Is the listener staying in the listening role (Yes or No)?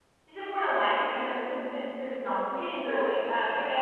Yes